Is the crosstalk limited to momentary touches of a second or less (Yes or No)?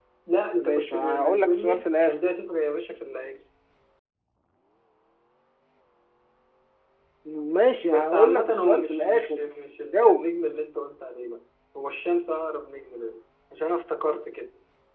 No